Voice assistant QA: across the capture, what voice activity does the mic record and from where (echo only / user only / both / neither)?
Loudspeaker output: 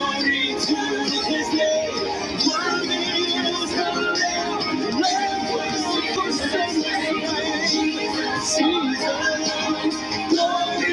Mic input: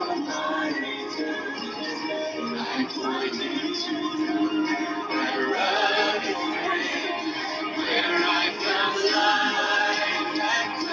both